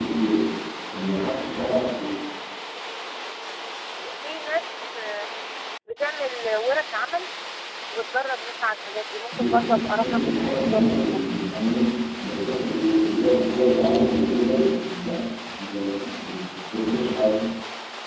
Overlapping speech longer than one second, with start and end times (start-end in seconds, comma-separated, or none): 9.3-11.2